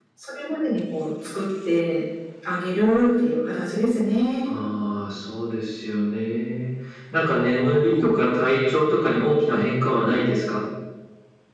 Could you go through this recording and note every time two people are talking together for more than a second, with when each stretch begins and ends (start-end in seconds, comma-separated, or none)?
none